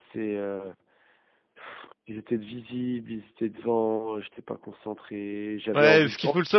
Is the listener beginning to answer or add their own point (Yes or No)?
Yes